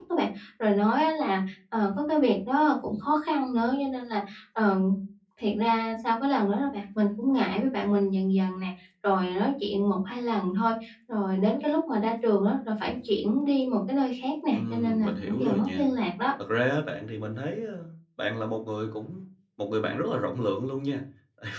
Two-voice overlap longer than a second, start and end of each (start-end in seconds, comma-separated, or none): 14.5-15.9